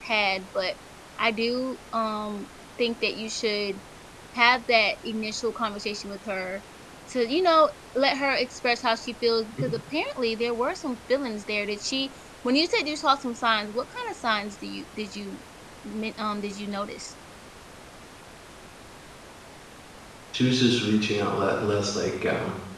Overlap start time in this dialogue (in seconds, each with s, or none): none